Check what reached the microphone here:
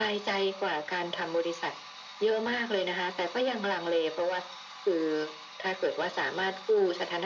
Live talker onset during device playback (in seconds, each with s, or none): none